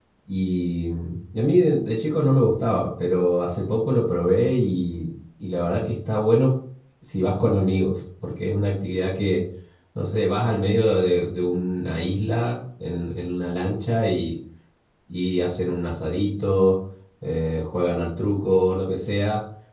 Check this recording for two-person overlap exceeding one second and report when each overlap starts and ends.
none

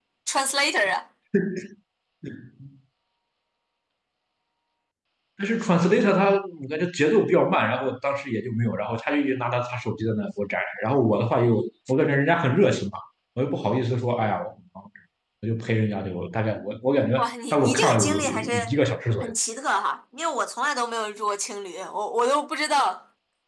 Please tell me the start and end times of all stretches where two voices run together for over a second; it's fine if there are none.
17.2-18.7

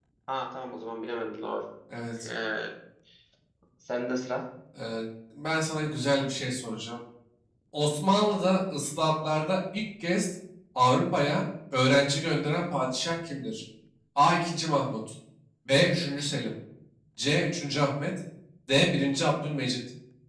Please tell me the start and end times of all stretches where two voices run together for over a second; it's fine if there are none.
none

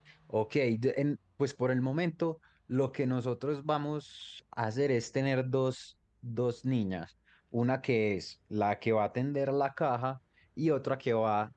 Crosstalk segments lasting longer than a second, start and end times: none

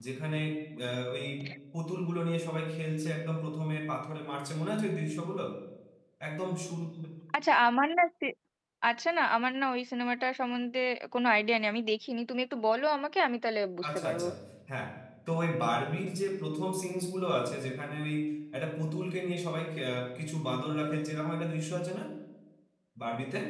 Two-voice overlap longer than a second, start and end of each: none

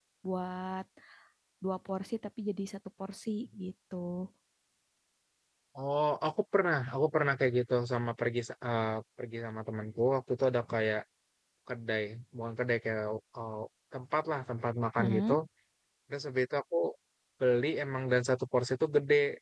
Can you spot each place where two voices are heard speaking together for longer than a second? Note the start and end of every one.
none

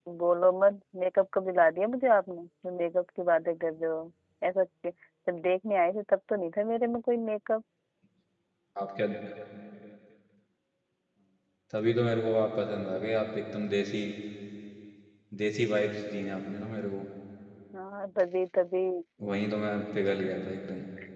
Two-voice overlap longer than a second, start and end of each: none

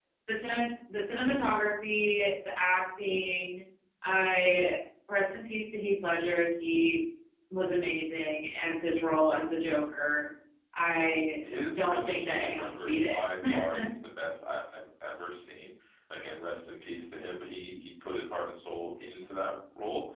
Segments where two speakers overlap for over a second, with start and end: 11.8-13.2

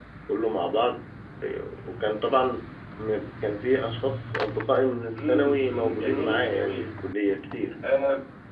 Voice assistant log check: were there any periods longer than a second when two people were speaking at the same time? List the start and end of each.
5.2-6.8

